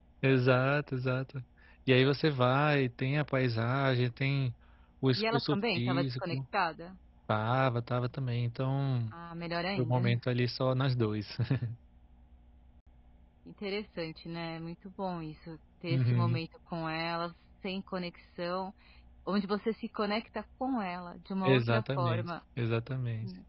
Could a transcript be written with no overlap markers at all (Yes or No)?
No